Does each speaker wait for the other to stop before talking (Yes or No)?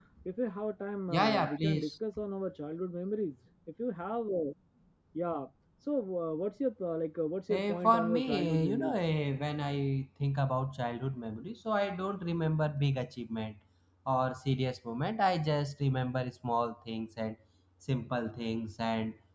No